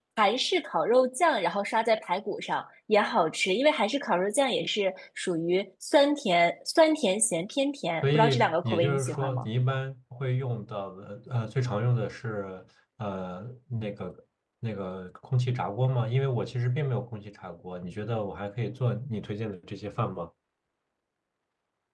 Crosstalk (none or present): present